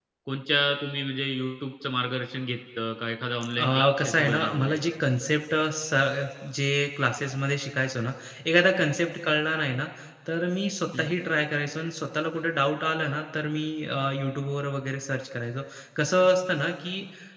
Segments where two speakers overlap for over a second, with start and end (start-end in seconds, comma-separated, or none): 3.6-4.8